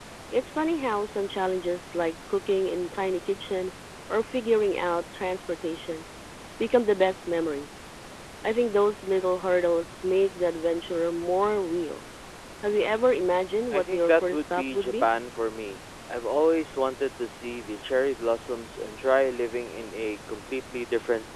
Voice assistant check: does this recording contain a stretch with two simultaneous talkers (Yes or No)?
Yes